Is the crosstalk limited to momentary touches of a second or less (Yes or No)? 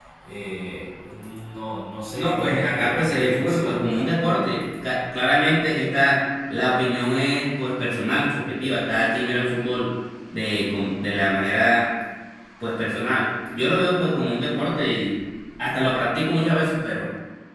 No